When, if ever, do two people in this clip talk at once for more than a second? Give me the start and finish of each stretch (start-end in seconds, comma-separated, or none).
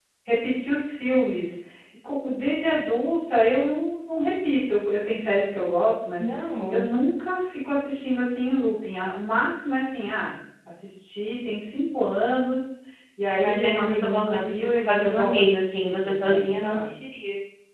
13.3-16.9